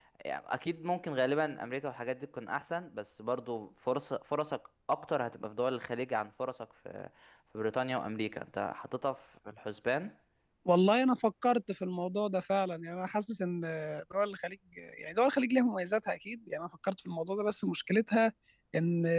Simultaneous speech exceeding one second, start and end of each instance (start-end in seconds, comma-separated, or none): none